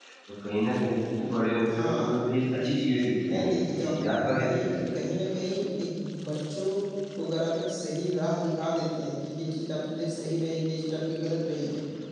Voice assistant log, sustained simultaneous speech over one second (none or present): present